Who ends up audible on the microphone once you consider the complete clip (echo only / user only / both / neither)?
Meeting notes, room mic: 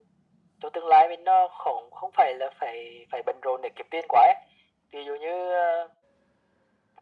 echo only